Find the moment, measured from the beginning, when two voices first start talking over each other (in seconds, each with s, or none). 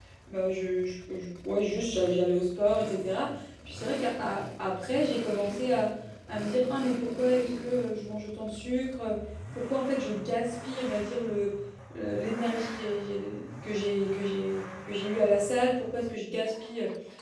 none